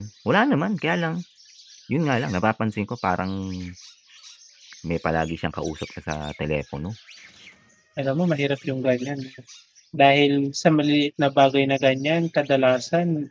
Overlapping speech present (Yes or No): No